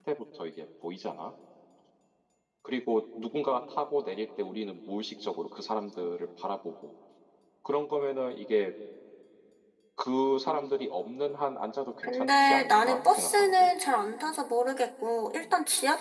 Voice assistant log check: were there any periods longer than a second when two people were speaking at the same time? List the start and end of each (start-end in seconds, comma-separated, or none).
12.0-13.7